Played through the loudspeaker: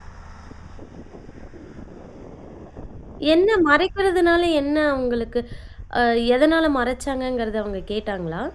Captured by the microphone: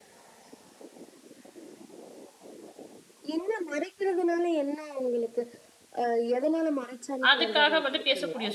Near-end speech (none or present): present